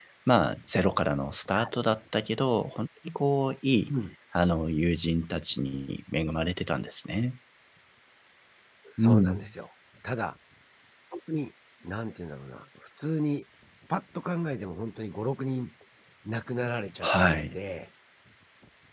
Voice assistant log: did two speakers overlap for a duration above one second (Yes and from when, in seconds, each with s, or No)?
No